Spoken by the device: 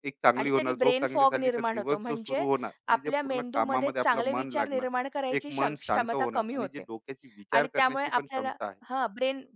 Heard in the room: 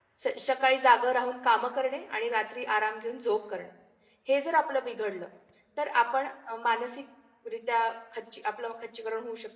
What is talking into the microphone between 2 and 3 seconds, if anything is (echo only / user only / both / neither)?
user only